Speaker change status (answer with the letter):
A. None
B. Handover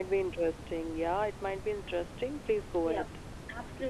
B